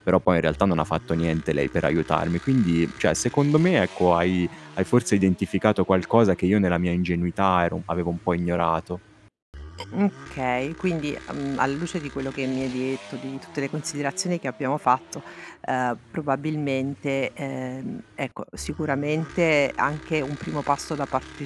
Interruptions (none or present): none